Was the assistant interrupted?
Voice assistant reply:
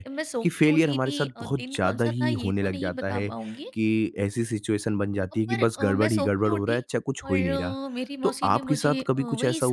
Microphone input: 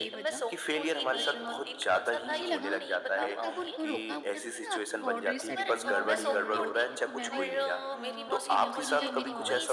Yes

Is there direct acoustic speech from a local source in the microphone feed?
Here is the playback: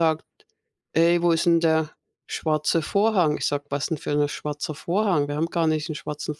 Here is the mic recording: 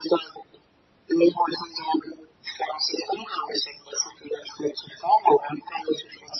No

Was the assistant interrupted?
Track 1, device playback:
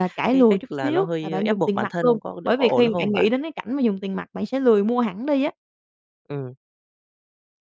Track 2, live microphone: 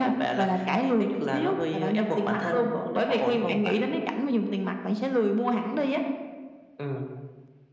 No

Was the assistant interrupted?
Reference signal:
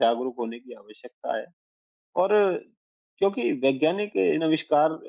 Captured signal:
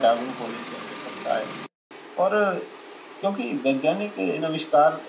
No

